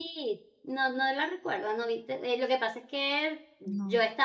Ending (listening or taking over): listening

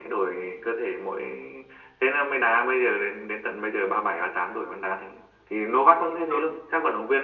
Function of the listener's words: listening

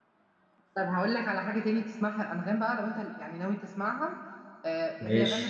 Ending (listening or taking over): listening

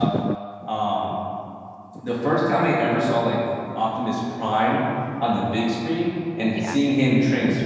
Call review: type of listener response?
listening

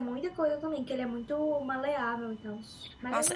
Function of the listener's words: taking over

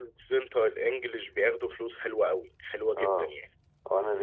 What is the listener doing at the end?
taking over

